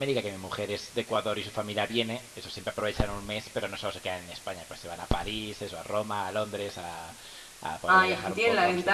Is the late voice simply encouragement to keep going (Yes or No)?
No